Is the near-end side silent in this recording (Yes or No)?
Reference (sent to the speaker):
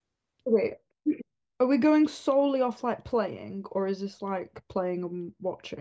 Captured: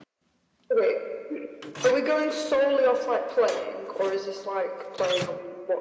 Yes